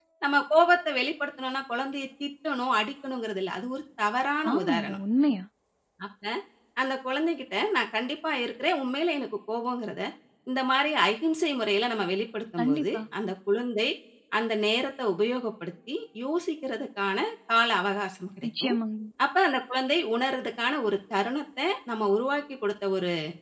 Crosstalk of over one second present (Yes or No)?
No